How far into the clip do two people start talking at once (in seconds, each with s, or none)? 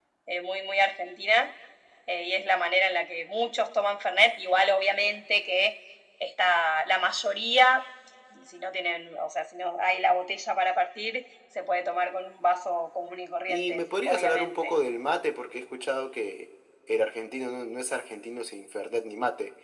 13.5 s